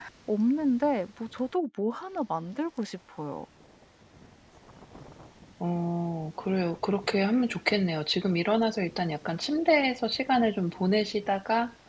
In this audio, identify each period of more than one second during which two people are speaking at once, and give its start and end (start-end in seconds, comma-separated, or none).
none